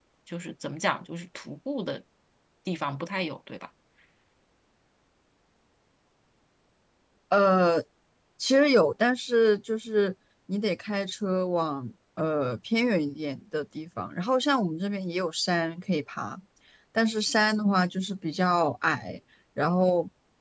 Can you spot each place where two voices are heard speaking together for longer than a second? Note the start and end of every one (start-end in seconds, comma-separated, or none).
none